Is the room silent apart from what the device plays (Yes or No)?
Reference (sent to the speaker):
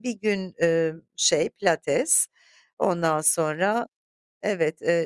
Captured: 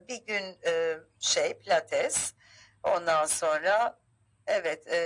Yes